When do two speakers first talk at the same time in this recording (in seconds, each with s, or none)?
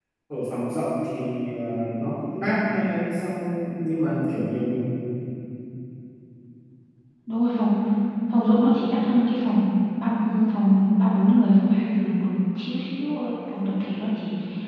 none